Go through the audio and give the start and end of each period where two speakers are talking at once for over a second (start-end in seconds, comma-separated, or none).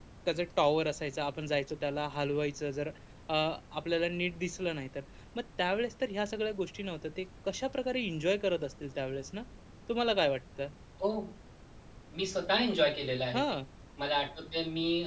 none